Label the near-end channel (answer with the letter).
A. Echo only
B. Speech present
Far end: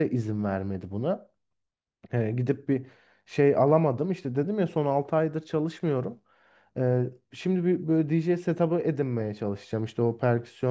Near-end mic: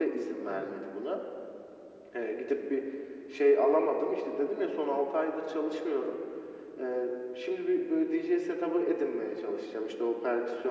B